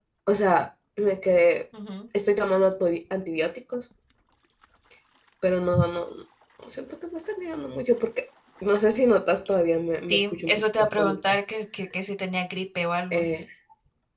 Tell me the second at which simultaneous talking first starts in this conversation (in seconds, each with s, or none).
10.1 s